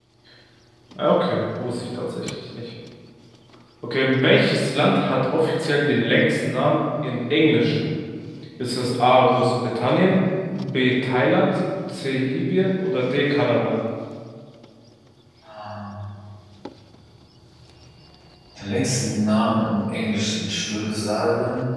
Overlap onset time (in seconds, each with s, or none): none